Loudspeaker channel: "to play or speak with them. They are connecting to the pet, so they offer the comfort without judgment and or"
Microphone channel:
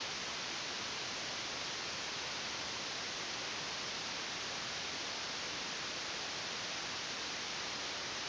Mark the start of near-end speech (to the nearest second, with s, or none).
none